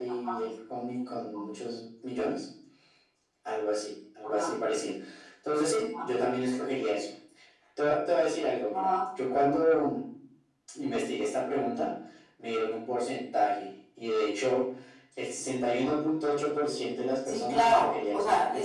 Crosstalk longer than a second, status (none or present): present